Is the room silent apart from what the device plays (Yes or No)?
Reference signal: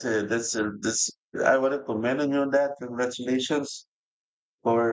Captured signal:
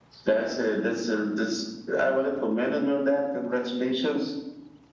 Yes